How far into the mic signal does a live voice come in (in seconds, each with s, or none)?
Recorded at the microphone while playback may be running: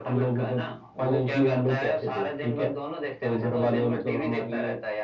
none